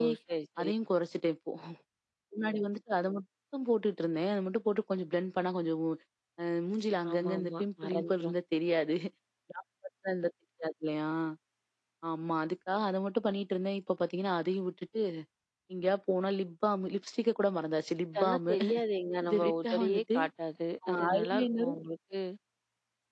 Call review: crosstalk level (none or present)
present